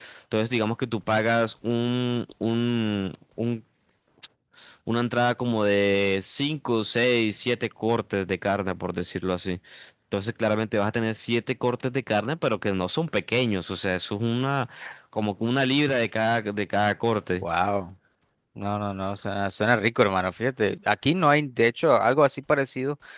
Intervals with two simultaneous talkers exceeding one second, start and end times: none

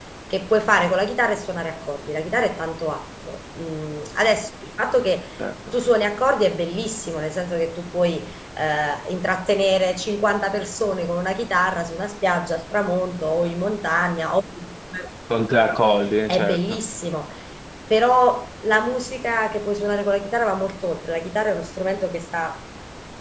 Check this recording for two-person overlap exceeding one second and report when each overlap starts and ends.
none

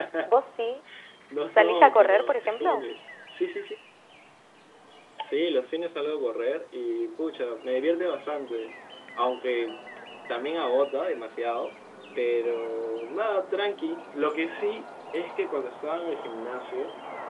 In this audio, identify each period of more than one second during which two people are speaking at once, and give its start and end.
1.6-2.8

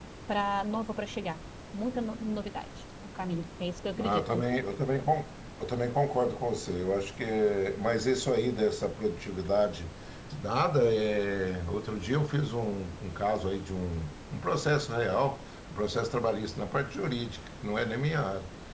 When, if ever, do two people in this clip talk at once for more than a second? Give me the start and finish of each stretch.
none

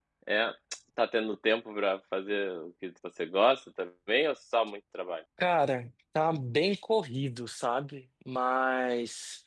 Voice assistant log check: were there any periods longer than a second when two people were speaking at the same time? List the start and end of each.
none

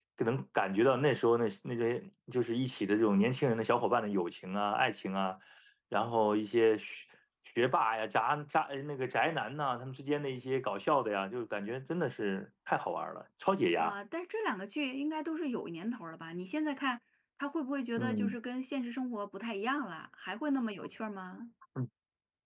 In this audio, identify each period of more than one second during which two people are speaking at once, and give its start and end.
none

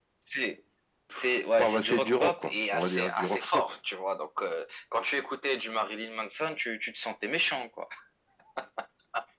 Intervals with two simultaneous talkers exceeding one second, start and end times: 1.6-3.6

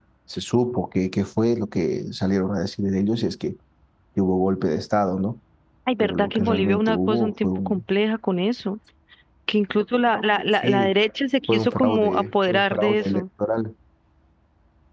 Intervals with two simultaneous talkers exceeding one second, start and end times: 6.0-7.8, 11.5-13.2

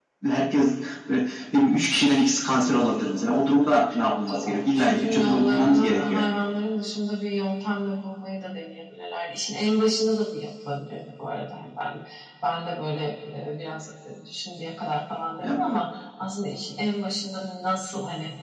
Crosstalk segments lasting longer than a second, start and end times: 4.3-6.2

